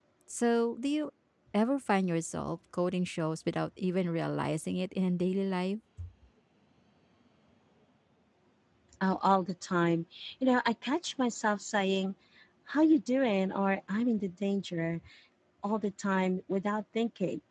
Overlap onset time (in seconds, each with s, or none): none